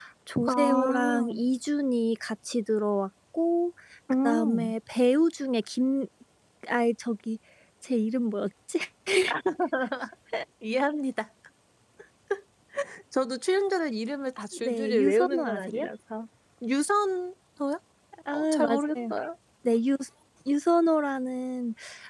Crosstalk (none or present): present